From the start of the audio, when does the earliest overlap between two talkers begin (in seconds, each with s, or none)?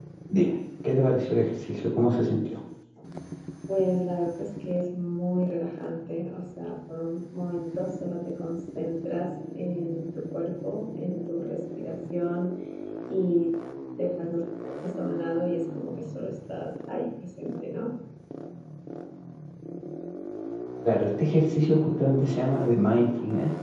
none